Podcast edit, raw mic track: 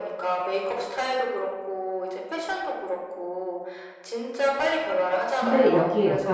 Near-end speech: present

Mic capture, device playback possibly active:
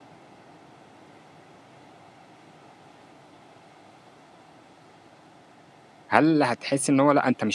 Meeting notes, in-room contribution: present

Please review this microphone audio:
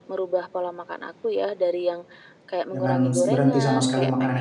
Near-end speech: present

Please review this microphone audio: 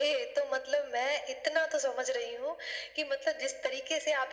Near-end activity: none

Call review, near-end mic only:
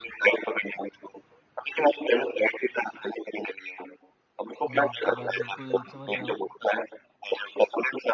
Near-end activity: present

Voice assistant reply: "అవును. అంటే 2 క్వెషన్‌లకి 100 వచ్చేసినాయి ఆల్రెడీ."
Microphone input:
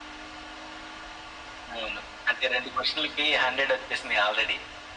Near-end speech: none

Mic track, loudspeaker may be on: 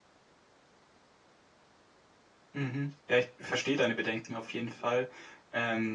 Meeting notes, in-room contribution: present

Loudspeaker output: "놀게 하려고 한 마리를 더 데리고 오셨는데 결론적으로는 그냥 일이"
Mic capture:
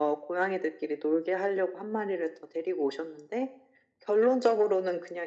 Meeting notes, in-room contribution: none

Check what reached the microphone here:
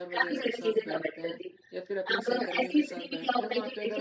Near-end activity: present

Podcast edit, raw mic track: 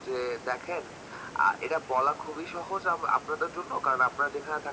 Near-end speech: none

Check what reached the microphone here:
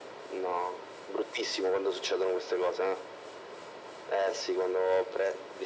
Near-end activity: none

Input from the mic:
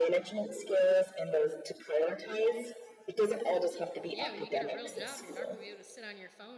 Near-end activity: present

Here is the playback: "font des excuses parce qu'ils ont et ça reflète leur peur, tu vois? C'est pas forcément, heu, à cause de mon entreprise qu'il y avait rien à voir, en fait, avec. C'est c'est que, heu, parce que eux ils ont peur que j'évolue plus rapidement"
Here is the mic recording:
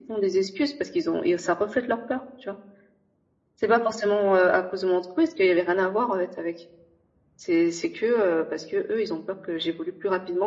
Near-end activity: none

